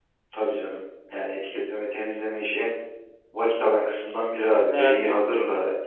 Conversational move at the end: listening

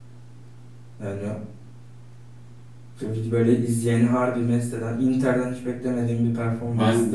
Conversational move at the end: taking over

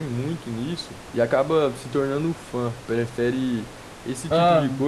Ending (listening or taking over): listening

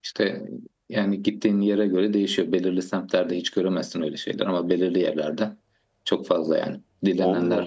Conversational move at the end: listening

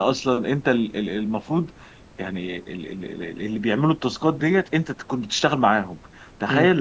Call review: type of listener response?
listening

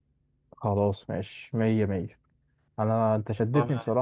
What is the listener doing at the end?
listening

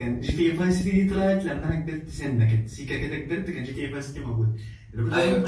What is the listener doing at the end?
listening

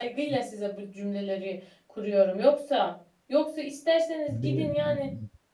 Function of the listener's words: listening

